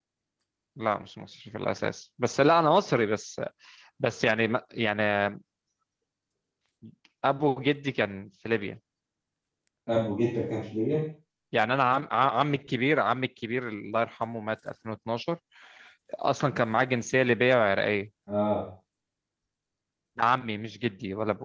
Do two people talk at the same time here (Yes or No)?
No